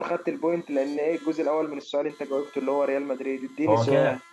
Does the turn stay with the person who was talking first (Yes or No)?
No